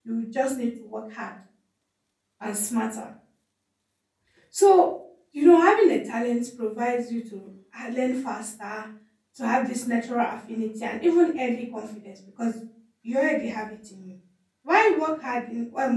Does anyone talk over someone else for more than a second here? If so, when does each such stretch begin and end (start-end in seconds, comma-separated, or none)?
none